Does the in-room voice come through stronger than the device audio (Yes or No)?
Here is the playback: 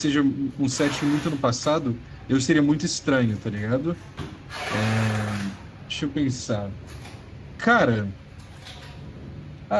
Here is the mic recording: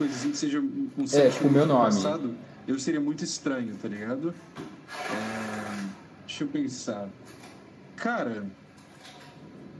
Yes